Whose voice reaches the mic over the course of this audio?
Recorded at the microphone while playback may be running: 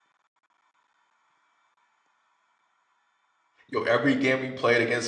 user only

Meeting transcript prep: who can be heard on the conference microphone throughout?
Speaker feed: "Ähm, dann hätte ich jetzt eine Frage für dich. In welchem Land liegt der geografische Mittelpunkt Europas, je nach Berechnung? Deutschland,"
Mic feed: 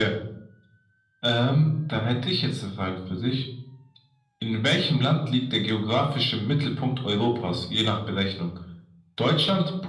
echo only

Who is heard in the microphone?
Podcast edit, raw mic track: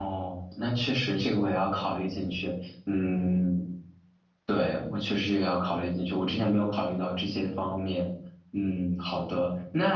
user only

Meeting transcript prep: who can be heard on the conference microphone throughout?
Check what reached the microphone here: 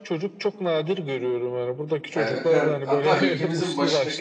both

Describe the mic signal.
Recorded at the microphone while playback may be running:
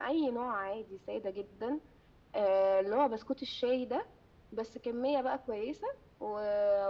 echo only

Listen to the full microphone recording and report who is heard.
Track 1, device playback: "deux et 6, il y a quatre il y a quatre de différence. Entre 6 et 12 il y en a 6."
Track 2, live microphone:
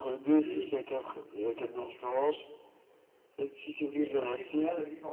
both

